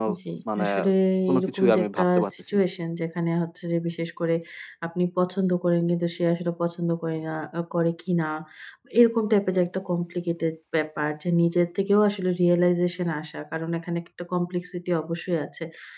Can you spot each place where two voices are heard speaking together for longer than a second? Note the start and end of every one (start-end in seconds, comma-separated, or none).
1.4-2.6